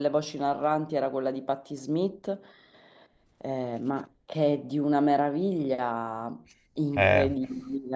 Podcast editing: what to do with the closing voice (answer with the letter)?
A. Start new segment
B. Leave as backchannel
B